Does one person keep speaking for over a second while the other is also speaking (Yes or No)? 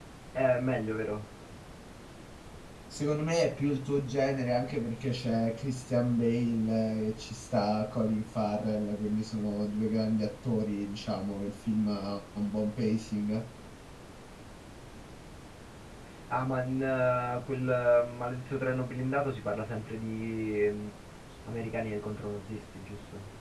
No